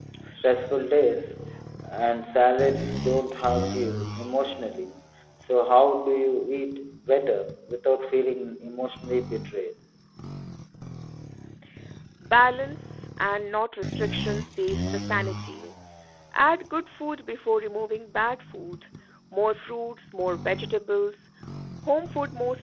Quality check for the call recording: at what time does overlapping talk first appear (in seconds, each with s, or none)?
none